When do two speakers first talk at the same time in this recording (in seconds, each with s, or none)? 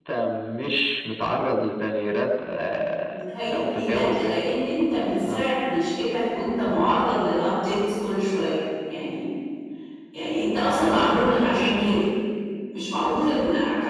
3.1 s